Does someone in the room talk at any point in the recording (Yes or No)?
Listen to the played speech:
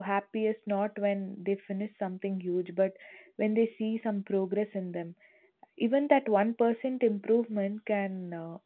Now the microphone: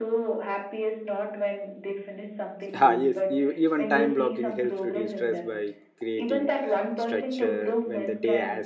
Yes